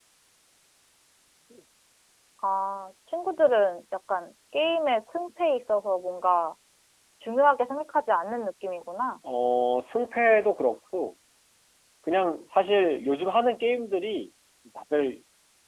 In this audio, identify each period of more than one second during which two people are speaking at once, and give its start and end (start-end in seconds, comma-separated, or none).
none